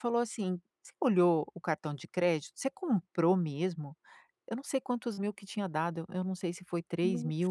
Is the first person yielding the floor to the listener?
No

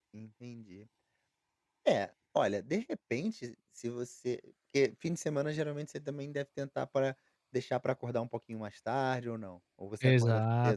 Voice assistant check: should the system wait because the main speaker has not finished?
No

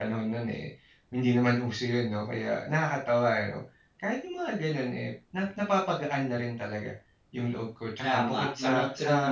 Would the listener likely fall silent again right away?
No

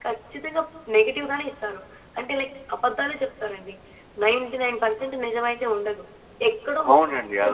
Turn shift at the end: Yes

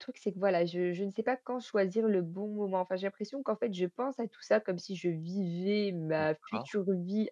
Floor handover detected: No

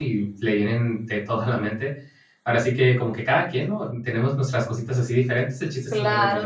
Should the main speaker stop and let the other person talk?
Yes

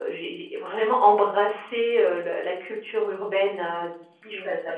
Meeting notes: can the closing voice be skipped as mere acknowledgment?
Yes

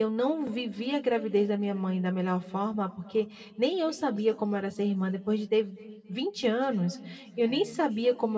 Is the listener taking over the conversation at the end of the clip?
No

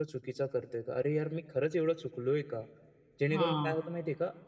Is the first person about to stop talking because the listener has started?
No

